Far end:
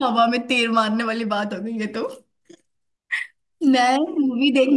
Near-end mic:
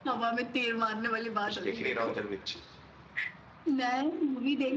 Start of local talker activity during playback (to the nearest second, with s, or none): 1 s